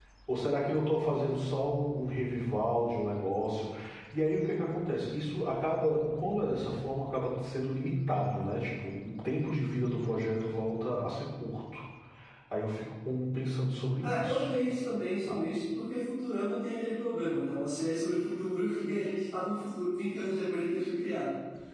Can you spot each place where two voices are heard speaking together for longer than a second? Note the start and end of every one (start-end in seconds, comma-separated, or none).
none